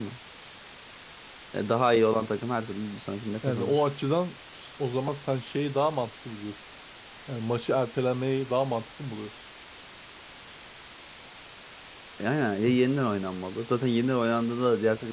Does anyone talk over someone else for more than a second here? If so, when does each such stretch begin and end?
none

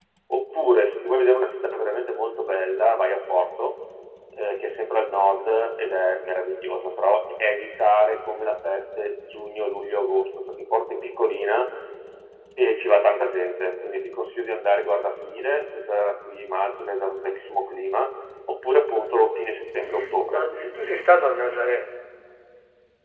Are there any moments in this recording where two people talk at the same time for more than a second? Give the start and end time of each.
none

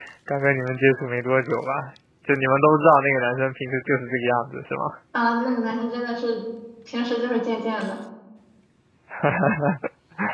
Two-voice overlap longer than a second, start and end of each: none

